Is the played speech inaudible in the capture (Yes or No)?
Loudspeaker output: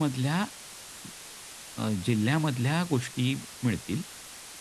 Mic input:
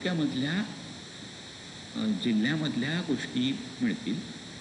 No